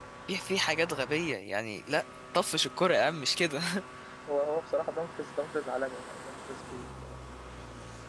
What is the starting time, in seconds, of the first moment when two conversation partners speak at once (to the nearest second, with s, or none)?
none